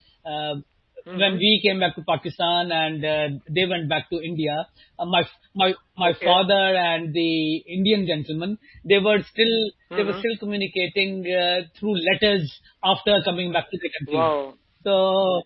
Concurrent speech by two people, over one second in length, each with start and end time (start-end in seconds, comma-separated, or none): none